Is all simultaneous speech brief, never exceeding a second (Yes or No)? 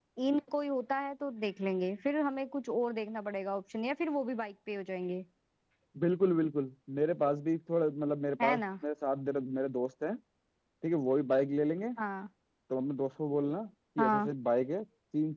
Yes